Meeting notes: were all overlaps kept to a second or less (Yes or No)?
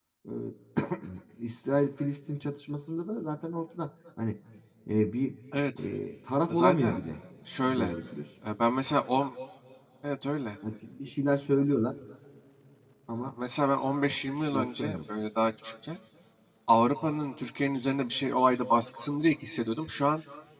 Yes